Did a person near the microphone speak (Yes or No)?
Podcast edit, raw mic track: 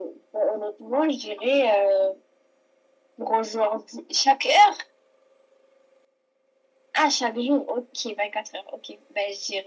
No